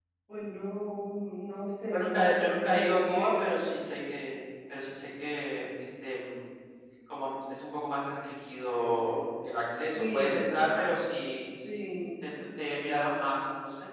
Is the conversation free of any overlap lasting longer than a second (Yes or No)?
No